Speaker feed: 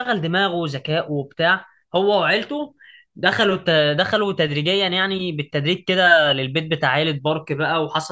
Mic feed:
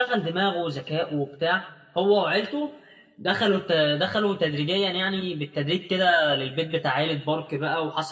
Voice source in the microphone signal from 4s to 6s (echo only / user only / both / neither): echo only